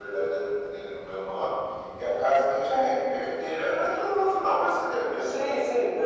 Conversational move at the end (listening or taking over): taking over